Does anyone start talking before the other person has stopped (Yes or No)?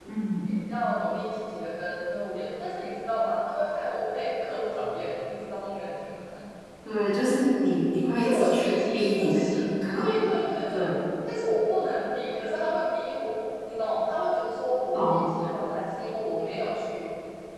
Yes